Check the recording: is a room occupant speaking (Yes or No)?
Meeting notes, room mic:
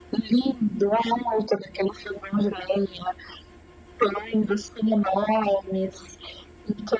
No